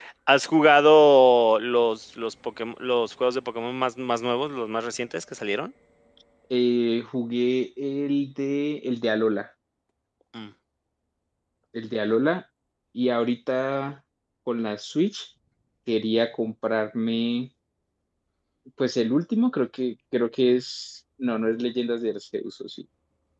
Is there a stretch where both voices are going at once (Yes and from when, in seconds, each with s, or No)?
No